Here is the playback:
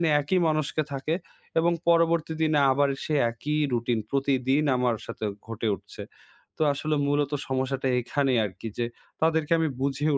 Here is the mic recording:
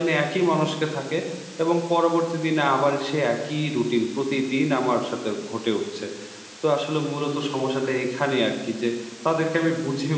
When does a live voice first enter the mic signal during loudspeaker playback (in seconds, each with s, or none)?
none